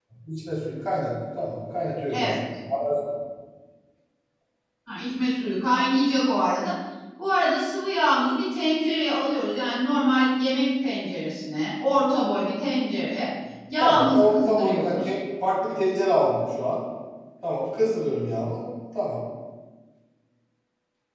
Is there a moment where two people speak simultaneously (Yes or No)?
Yes